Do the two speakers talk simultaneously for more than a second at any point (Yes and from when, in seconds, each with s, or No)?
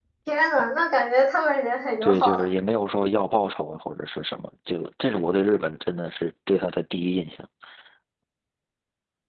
No